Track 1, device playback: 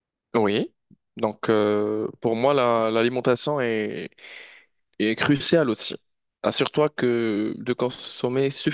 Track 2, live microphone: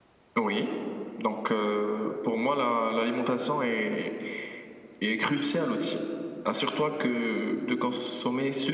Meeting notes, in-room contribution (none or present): none